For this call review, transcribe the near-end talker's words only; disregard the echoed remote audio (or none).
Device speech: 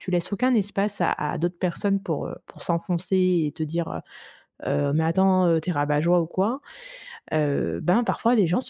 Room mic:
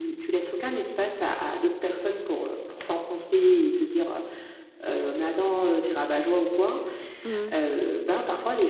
Mmh